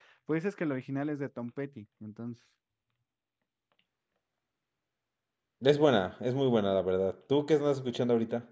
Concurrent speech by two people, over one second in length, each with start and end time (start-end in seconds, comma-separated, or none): none